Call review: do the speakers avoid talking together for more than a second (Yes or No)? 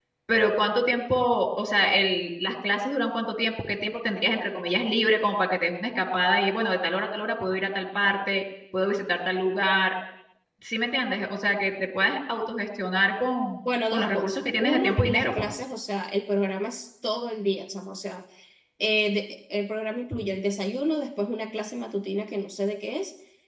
No